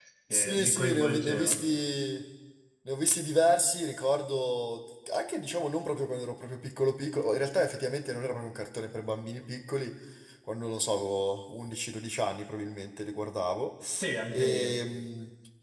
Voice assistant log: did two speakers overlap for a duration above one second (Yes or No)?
Yes